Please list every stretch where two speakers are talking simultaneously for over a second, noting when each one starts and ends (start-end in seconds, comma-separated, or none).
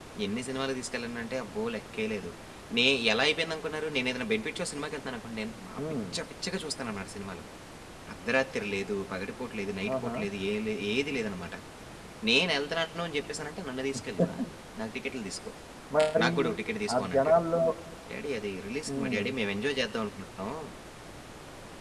none